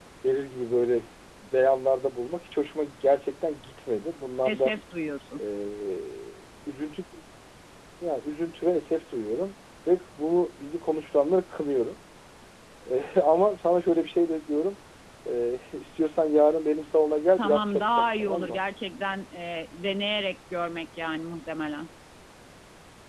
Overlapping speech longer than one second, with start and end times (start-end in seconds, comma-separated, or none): 17.4-18.6